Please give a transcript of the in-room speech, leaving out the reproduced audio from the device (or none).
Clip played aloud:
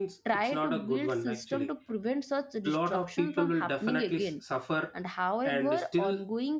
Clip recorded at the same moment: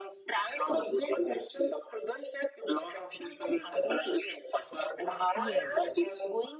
yes